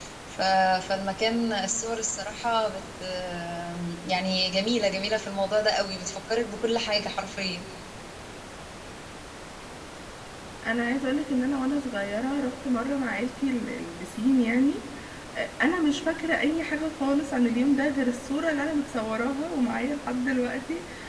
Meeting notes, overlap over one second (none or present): none